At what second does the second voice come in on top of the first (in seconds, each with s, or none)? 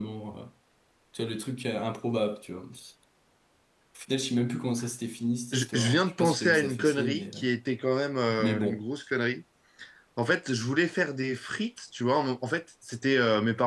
5.5 s